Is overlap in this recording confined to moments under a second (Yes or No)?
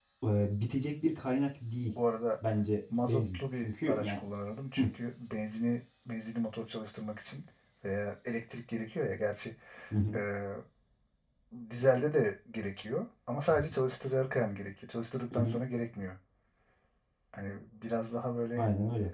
No